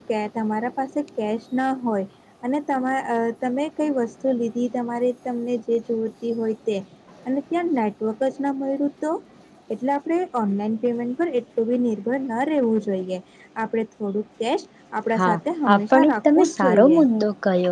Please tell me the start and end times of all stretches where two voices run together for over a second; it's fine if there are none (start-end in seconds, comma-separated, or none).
15.7-17.0